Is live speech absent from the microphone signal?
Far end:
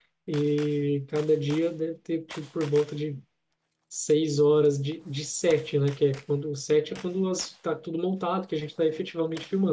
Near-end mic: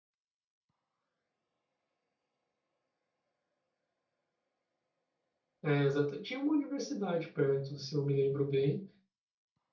No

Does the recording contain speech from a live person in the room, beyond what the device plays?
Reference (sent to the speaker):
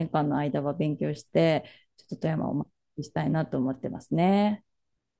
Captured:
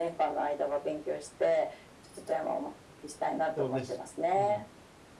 Yes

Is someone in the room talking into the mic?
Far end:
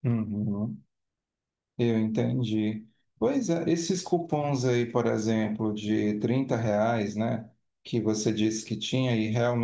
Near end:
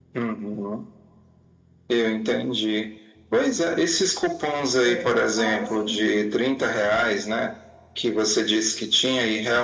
Yes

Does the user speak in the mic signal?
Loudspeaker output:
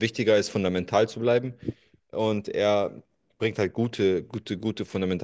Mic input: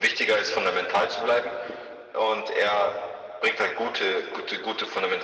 No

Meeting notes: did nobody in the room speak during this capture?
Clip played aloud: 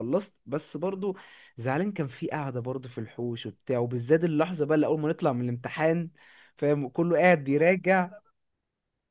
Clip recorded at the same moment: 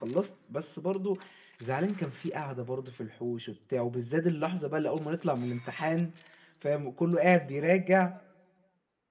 Yes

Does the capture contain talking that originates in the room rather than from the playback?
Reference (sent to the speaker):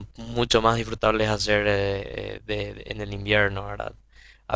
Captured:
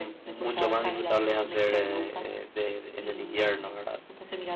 Yes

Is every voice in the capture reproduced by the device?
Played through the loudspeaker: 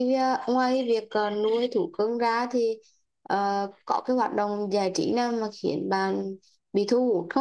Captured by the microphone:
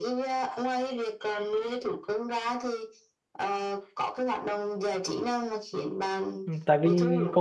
No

